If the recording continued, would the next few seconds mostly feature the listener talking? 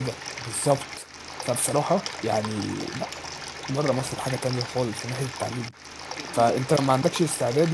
No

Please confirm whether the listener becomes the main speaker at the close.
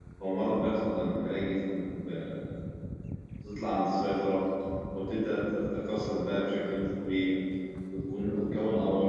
No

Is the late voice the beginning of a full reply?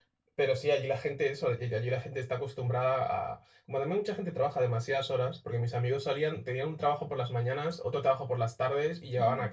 No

